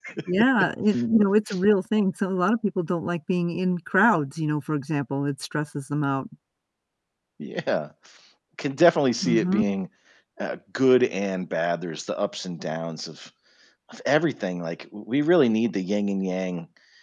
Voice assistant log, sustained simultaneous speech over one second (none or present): none